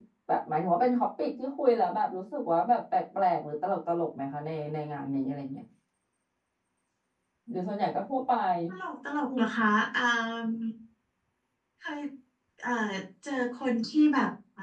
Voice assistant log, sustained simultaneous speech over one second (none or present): none